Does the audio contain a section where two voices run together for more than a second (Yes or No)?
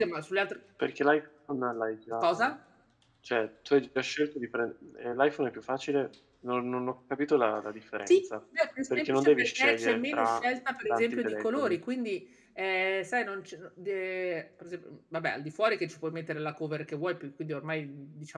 Yes